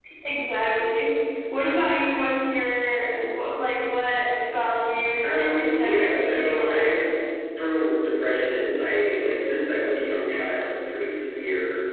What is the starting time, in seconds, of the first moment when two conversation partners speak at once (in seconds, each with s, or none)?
5.2 s